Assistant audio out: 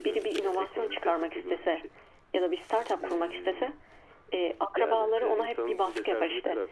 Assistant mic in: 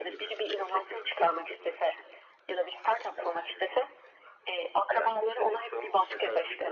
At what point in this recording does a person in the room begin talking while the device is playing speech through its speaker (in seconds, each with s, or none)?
none